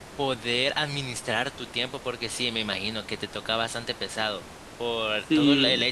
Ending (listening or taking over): listening